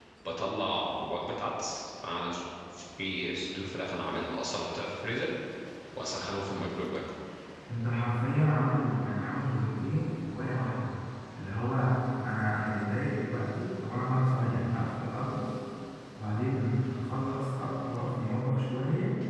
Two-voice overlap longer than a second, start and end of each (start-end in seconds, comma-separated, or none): none